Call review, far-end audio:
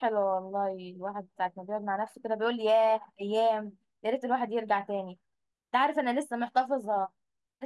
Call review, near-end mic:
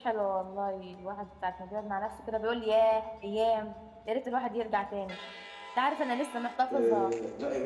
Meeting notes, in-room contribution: present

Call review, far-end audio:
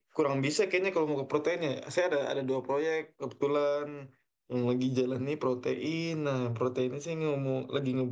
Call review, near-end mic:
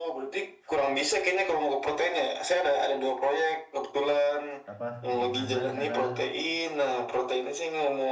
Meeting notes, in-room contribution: present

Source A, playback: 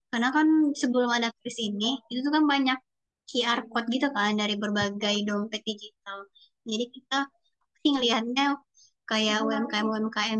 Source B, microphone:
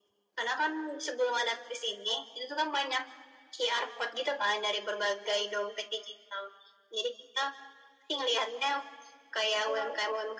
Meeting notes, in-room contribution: none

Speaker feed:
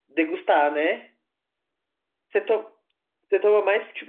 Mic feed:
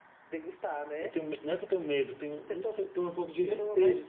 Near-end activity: present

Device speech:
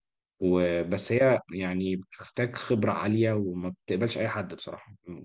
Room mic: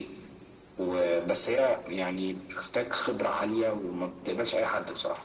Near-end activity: none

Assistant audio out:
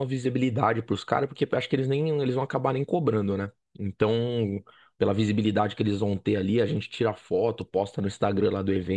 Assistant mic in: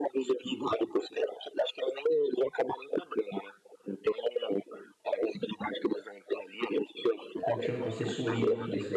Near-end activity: present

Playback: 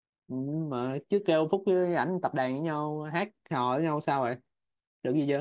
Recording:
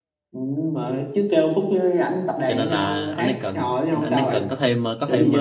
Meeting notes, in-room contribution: present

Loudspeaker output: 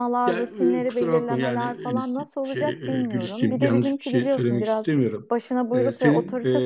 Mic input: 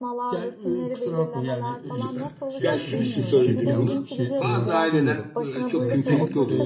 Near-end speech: present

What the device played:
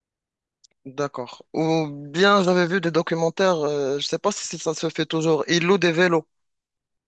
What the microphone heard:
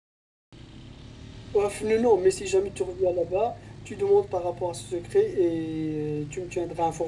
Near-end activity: present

